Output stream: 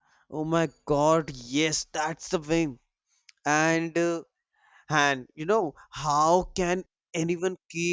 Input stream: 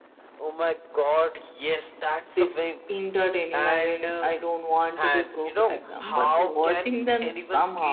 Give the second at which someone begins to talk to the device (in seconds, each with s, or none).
2.3 s